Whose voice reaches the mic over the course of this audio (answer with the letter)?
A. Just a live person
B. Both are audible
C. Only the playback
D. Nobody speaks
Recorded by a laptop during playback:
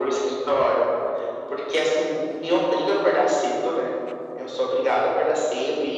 C